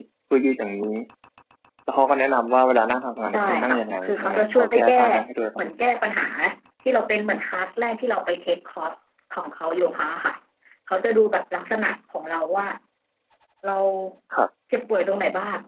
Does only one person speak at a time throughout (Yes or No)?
No